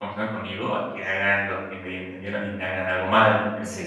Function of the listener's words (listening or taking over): taking over